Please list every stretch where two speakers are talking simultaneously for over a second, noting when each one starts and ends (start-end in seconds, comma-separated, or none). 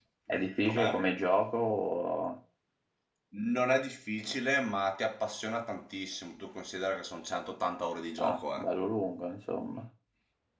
none